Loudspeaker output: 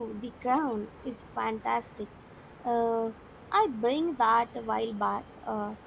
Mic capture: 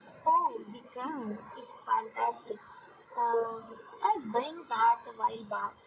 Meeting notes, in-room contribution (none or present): none